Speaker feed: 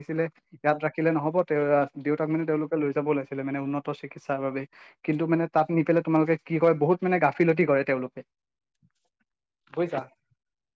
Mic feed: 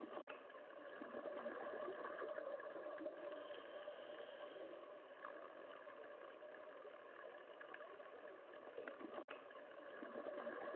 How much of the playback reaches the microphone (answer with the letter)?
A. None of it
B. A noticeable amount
A